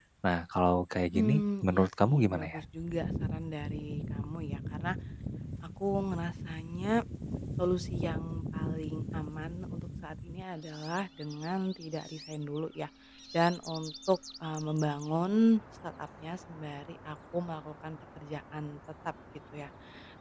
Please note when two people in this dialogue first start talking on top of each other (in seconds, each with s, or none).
1.1 s